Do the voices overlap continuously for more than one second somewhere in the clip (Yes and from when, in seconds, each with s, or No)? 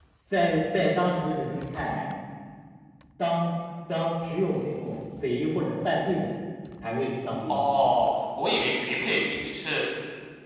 No